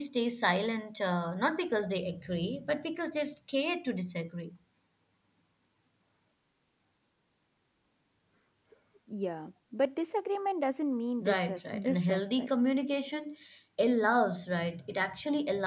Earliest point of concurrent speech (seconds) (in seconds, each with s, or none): 11.2 s